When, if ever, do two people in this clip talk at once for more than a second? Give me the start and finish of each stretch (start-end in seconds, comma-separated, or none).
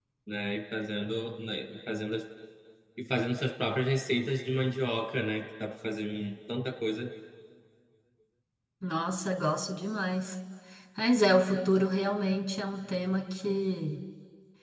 none